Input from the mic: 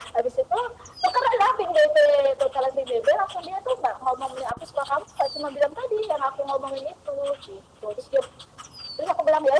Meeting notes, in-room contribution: none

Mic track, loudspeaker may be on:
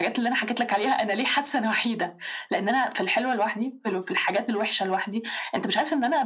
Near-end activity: none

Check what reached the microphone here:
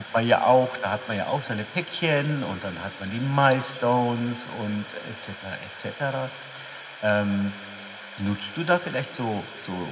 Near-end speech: none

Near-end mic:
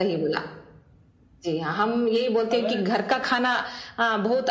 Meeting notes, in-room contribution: present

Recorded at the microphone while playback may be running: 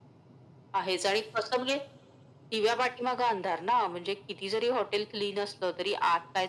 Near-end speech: none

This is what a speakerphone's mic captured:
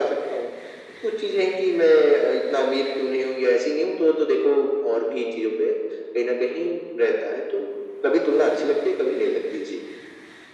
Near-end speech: none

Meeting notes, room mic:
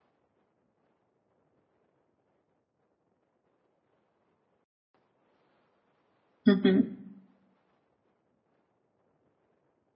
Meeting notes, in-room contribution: present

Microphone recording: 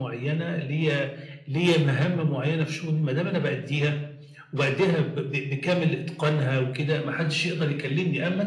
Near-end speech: none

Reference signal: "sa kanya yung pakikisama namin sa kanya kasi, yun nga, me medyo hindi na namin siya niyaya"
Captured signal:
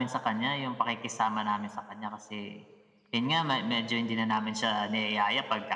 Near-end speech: none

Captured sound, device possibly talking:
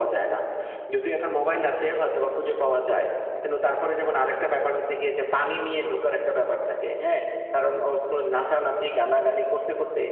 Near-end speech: none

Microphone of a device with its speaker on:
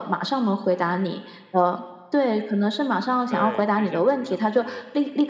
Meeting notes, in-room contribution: present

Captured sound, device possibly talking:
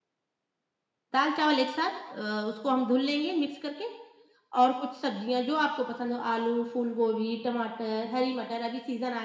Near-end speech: none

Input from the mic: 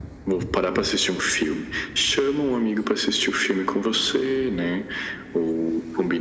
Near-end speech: none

